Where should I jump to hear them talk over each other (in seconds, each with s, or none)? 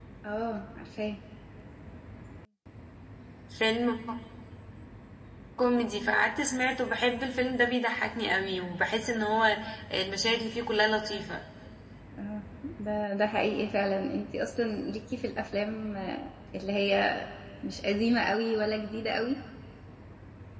none